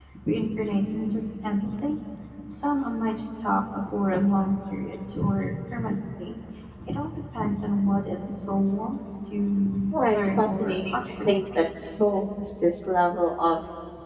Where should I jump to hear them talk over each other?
9.9 s

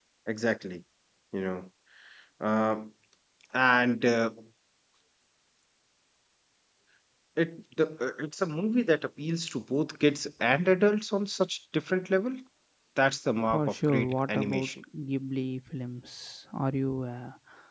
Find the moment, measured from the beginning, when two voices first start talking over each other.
13.5 s

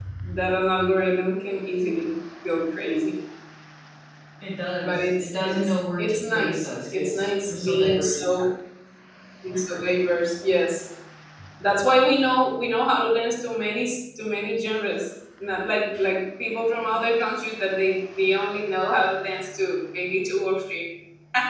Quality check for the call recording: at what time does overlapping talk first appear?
4.8 s

